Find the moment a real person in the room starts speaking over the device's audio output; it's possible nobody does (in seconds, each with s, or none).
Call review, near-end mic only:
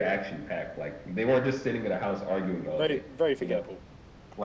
2.8 s